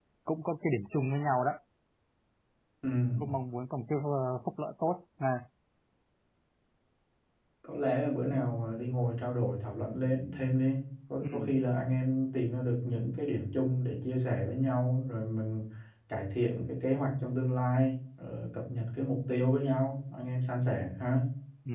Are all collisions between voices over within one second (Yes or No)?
Yes